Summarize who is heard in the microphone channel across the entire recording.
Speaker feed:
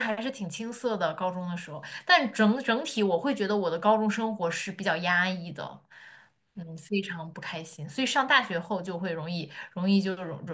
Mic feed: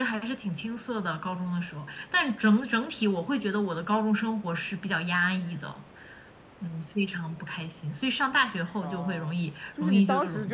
both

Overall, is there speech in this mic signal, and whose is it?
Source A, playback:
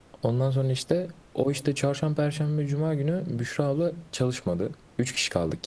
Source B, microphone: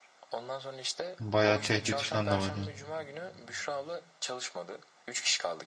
both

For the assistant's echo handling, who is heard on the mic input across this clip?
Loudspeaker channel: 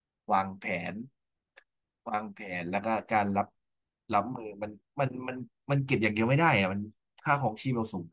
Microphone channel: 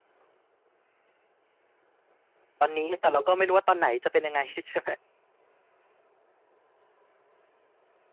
user only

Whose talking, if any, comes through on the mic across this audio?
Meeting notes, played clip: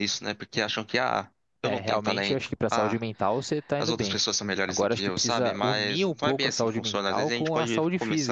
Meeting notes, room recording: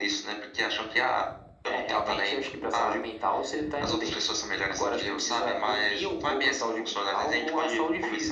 echo only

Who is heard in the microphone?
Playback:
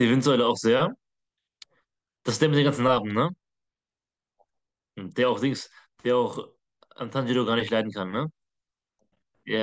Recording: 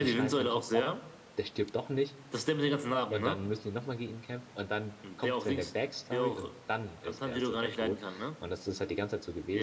both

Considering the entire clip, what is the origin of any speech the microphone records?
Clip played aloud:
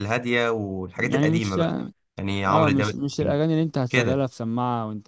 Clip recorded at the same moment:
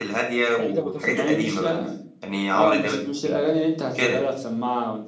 both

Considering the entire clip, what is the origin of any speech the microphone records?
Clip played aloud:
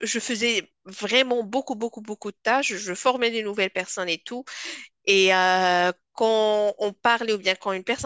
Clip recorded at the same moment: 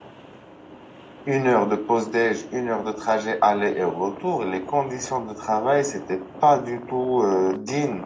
user only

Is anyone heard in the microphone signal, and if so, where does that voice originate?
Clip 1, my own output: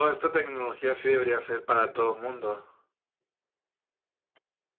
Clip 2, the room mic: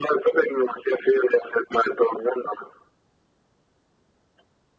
echo only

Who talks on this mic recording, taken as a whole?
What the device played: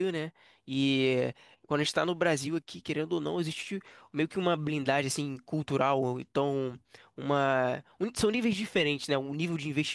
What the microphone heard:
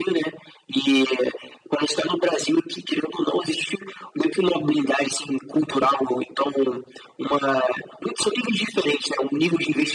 echo only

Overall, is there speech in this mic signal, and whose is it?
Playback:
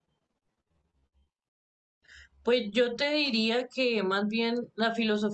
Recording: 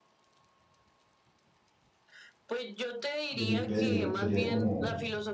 both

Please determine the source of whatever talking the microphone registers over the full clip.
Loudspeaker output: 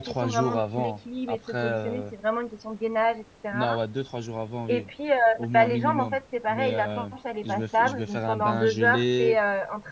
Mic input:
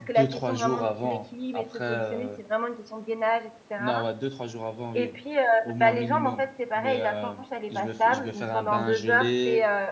echo only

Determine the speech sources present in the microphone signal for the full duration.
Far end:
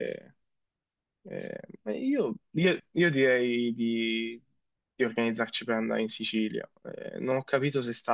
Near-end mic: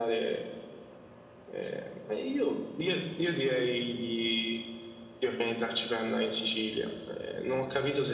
echo only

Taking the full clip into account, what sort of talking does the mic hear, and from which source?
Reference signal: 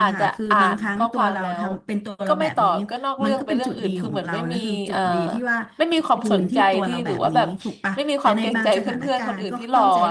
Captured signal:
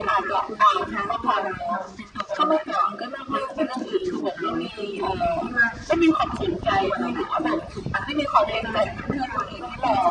echo only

